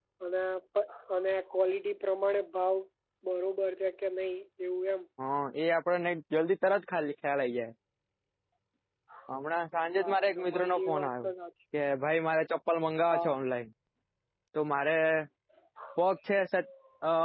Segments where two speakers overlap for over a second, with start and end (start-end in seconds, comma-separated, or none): 10.0-11.3